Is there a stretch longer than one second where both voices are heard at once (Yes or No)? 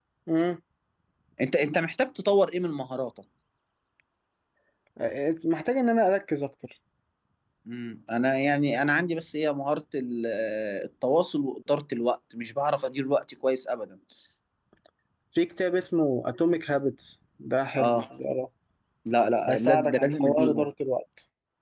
Yes